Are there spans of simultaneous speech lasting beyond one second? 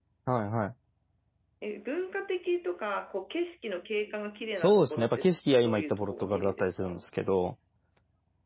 Yes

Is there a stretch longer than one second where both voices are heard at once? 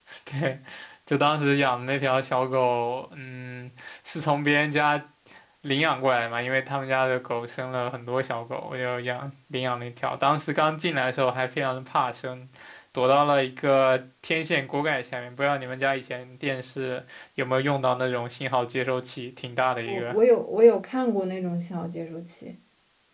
No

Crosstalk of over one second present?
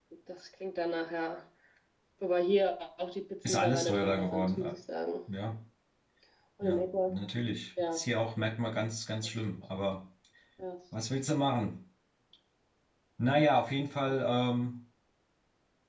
Yes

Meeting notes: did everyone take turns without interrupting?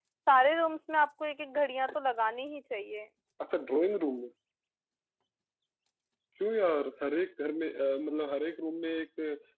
Yes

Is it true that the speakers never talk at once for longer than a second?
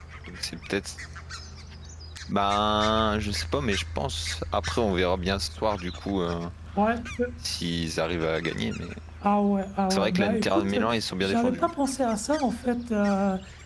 No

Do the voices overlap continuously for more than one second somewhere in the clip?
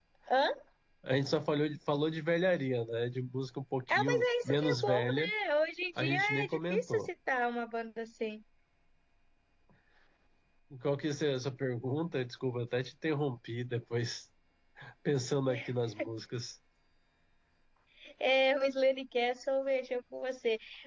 Yes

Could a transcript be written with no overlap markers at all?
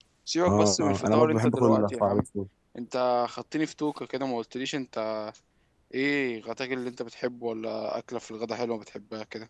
No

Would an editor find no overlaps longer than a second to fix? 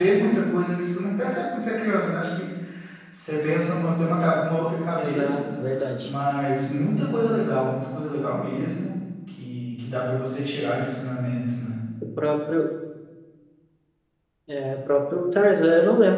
Yes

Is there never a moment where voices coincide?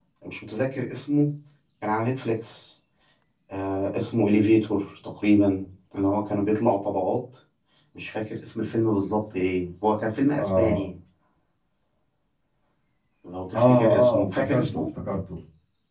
No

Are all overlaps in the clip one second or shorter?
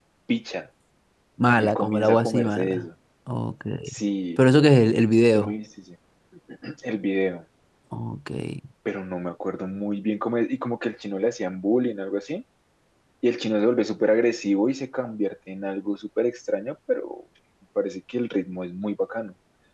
No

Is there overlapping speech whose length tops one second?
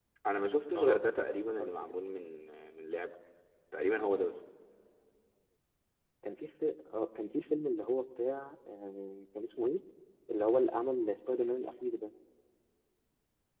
Yes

